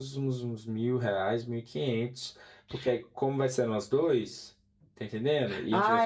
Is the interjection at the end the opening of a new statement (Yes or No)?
Yes